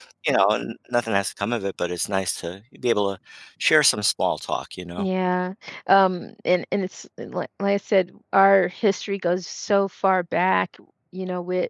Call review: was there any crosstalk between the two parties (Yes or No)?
No